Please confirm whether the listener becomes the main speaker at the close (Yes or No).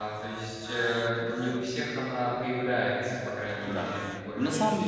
Yes